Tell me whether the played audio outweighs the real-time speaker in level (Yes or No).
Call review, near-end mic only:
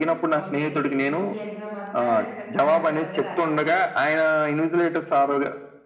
Yes